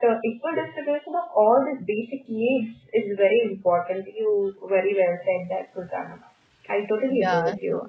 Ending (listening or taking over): taking over